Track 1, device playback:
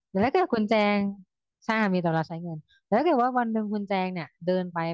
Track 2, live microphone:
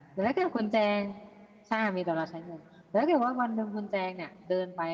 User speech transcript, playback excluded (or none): none